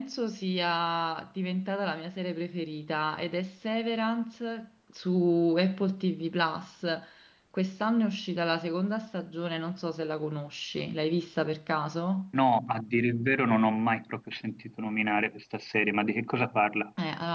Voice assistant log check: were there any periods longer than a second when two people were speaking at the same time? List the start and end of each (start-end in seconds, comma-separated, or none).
none